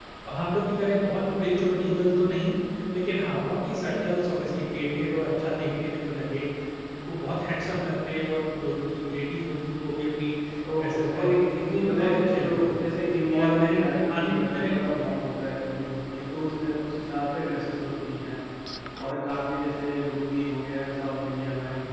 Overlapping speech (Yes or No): Yes